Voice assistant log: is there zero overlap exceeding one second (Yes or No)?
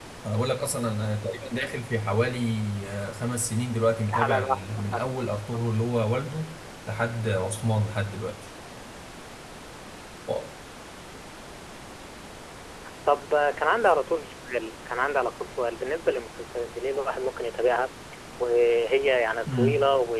No